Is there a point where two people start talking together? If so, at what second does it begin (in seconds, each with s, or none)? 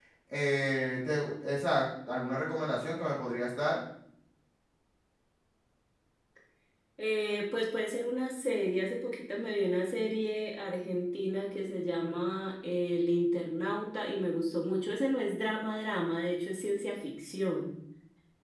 none